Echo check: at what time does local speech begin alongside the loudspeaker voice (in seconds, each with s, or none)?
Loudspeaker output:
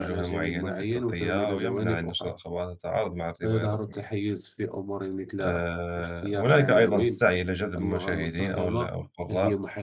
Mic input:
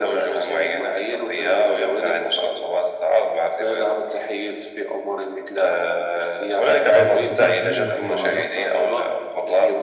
6.9 s